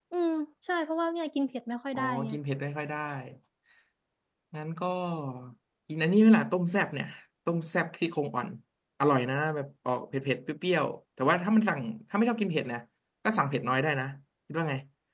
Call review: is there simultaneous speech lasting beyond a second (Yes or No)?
No